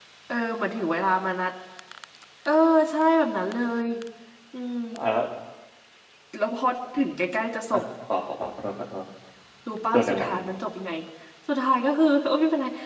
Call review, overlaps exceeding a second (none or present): none